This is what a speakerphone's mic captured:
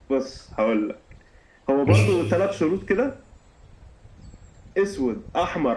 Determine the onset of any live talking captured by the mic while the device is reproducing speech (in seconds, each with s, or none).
1.9 s